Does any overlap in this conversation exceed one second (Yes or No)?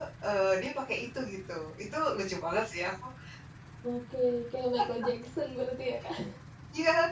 No